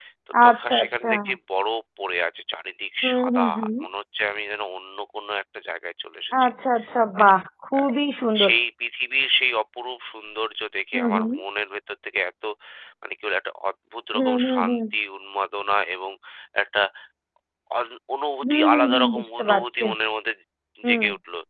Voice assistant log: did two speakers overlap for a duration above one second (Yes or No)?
Yes